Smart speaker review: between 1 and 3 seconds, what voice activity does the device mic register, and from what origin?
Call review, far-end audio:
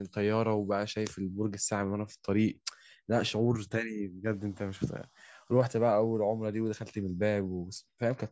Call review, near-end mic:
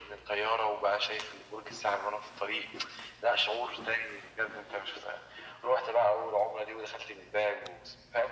echo only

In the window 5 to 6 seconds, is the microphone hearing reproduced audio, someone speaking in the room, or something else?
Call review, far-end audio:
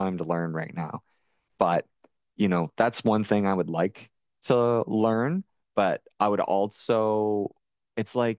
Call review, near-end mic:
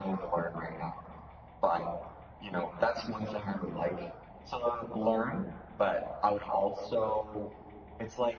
echo only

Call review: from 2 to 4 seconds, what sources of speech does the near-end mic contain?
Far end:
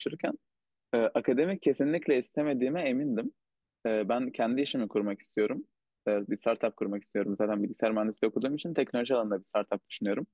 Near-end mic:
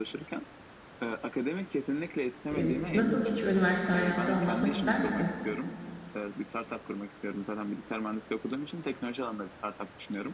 both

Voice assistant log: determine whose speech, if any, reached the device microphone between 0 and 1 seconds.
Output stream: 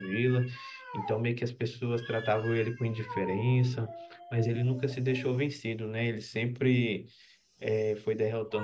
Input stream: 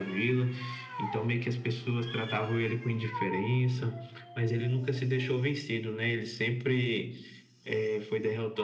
echo only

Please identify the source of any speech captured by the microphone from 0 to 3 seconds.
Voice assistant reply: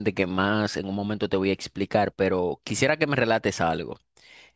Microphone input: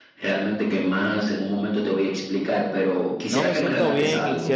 echo only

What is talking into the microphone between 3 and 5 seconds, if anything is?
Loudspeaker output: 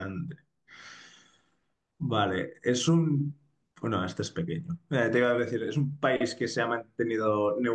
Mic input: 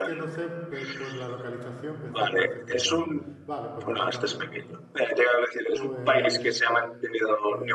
both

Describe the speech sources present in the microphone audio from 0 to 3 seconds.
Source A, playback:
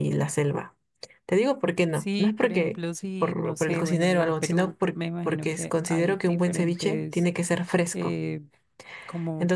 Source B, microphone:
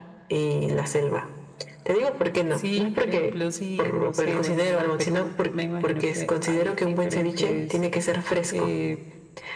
echo only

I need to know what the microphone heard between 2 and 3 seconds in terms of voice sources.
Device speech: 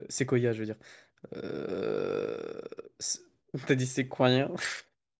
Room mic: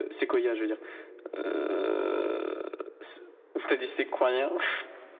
echo only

